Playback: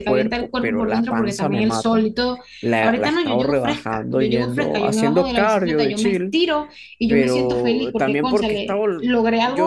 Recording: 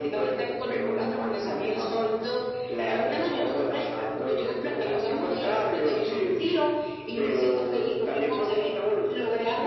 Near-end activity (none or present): none